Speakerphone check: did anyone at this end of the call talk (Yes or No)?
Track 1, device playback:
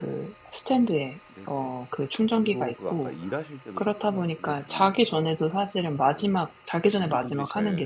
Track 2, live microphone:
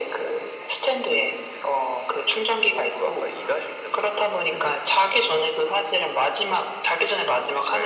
Yes